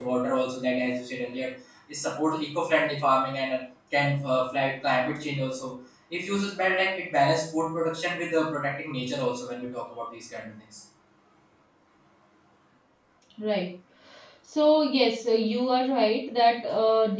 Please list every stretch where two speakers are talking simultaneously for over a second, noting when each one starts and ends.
none

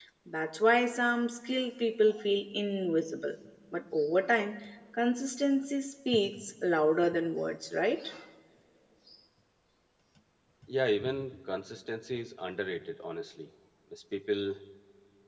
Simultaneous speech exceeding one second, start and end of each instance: none

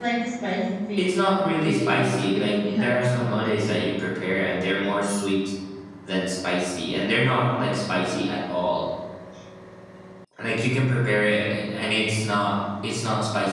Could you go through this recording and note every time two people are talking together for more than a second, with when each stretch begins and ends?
1.0-3.0

